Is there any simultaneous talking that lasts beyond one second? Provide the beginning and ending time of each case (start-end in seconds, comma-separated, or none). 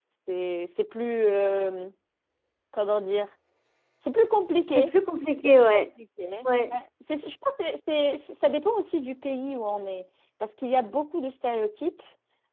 none